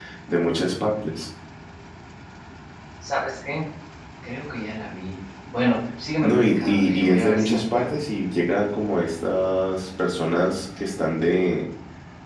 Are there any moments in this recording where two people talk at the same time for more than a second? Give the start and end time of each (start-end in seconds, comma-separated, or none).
6.2-8.0